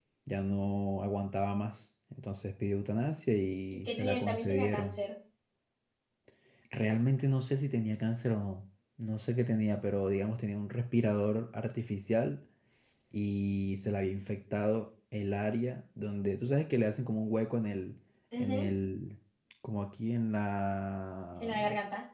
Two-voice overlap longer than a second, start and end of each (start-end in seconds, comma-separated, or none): 3.7-5.0